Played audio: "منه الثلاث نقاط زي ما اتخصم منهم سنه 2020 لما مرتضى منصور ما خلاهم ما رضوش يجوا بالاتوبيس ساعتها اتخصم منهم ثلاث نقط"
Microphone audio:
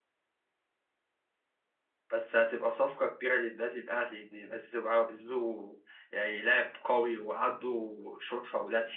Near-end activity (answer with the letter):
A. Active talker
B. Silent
A